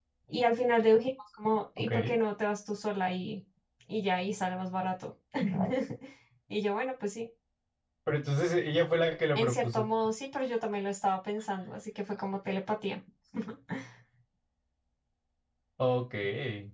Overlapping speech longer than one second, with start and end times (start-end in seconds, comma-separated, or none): none